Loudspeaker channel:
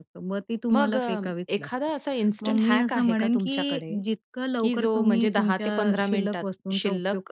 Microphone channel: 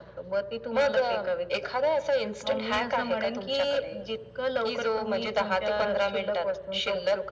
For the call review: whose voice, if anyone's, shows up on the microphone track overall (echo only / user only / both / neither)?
echo only